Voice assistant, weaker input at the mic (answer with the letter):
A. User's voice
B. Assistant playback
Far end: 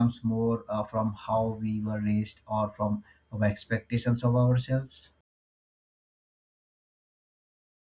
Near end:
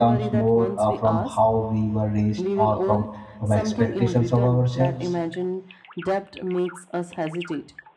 A